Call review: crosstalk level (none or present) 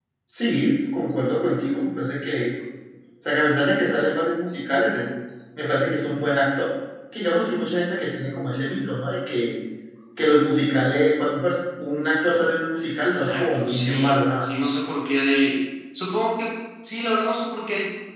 present